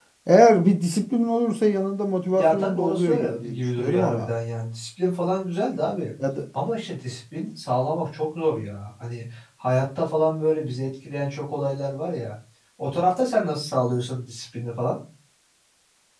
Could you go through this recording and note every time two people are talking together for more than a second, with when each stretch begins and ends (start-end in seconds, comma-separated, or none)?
2.4-4.3